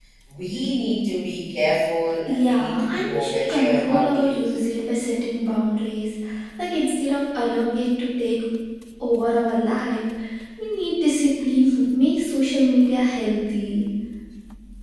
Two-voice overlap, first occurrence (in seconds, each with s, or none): 2.3 s